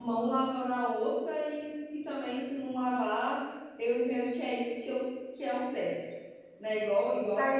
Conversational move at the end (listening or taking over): taking over